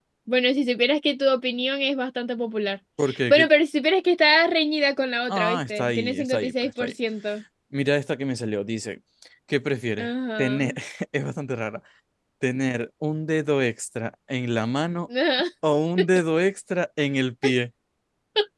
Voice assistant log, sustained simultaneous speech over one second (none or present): present